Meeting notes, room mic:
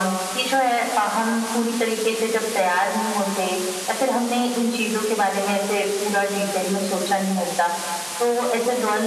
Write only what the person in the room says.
none

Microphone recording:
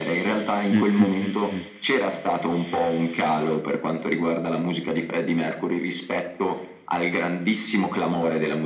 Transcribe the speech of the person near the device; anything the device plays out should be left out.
Mh, mh, mh, mh.

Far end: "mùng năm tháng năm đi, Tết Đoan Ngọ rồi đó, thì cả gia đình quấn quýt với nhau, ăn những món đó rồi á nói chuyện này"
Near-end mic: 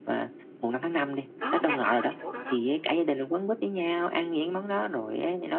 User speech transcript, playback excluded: Đó, đang thắc mắc cái chỗ đó đó.

